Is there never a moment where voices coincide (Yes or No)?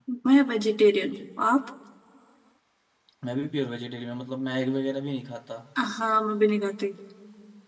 Yes